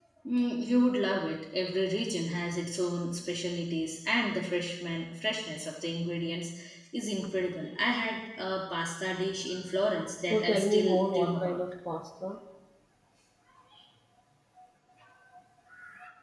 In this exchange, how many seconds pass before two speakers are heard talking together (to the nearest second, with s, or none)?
10 s